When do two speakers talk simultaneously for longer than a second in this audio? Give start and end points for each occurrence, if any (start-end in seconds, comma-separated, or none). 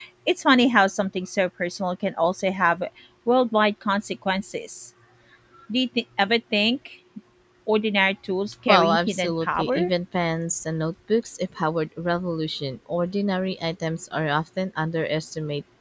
8.7-9.9